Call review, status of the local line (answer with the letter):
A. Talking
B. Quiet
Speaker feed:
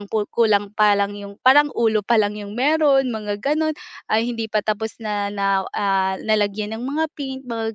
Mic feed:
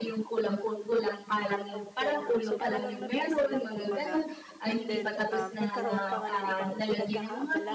A